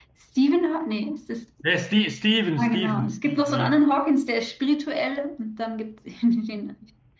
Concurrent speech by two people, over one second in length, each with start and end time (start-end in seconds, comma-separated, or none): 2.6-3.8